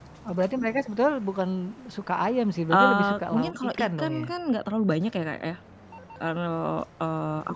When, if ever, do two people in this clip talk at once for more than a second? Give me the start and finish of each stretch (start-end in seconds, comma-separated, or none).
2.7-4.3